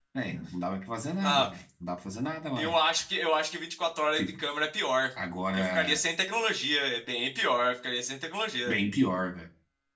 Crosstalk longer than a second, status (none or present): none